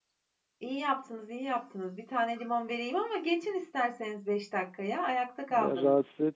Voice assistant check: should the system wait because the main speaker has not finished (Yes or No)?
No